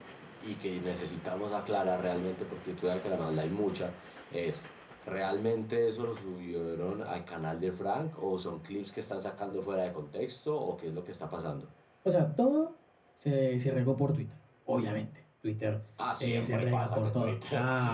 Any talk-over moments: Yes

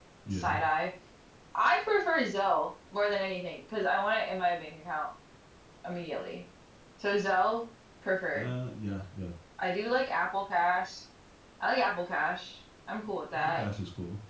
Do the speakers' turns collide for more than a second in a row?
No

